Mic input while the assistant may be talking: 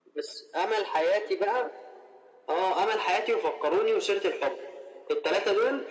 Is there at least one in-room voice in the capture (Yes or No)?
No